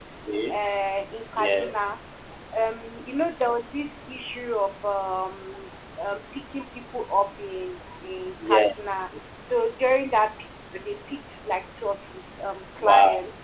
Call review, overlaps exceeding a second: none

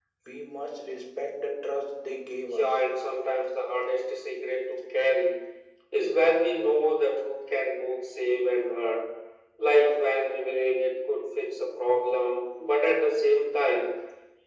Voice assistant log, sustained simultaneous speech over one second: none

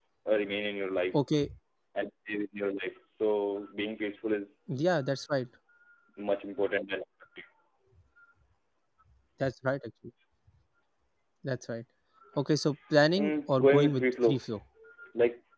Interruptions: present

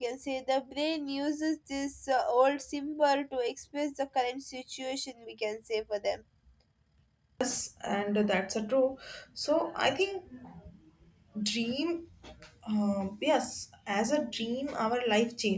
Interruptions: none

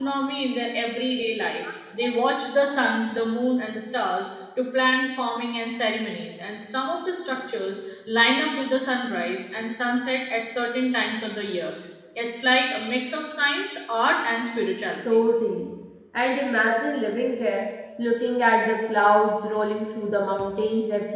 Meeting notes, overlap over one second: none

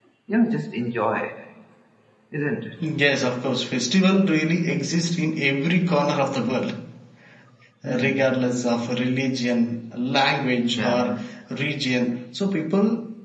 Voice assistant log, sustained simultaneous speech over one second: none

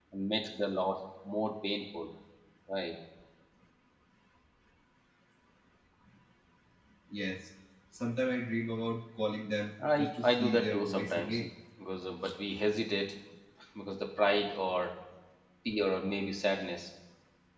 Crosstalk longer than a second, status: present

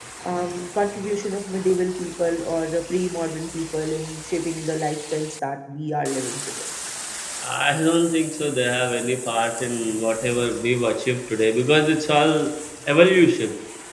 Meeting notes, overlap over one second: none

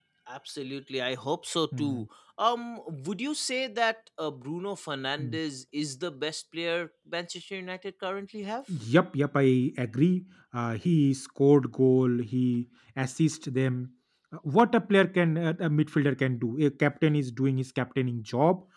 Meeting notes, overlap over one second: none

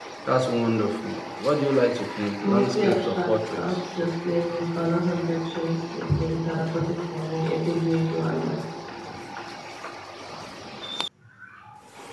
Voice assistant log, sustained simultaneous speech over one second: present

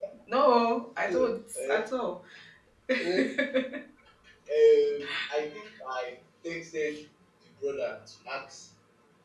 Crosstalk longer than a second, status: none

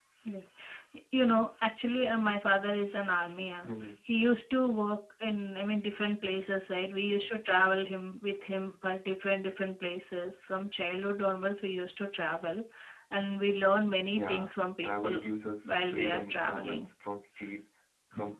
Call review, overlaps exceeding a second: present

